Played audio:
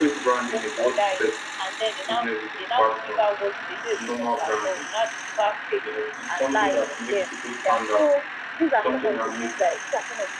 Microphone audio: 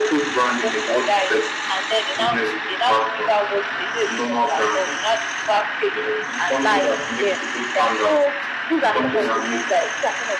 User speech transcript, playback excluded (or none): none